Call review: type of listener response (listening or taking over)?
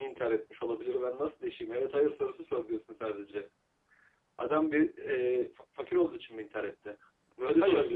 taking over